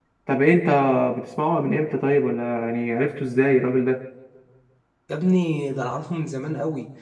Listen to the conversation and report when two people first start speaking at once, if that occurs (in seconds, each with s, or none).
none